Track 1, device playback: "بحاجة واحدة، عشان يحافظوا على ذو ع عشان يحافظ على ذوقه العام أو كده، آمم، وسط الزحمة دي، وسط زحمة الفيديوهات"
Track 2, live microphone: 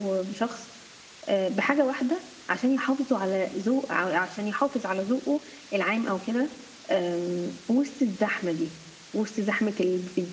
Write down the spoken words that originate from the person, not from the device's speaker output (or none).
none